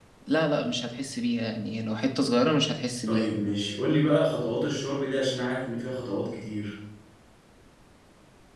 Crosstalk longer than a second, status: none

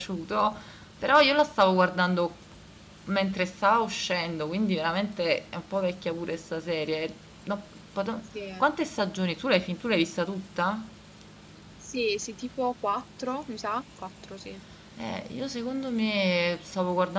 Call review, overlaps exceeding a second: none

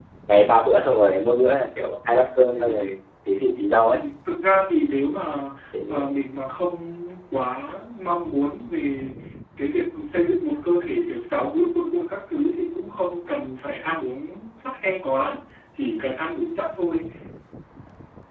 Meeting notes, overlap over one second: none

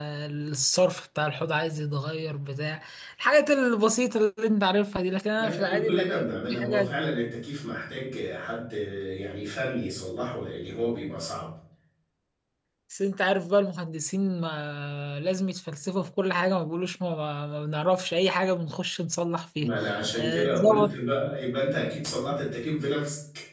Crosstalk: present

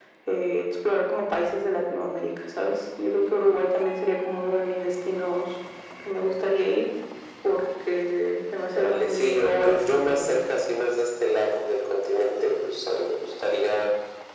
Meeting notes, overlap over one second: present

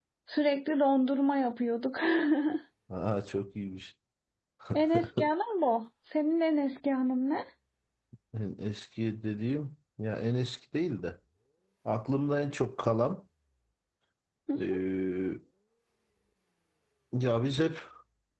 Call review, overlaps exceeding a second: none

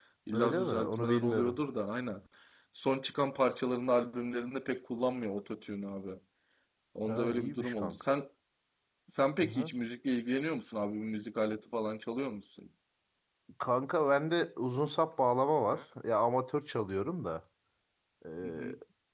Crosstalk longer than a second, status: present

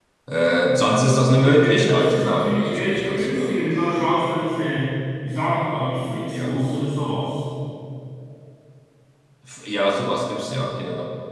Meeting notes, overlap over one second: present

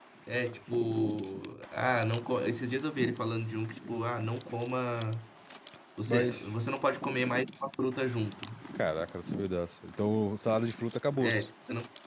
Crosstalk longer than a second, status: none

